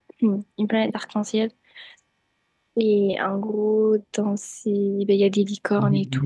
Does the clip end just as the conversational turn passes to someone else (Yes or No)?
Yes